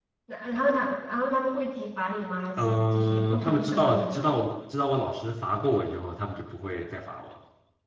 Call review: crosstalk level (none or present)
present